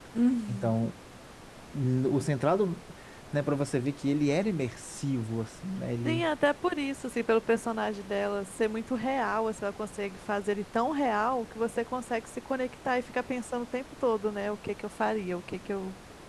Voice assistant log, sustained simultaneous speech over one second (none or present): none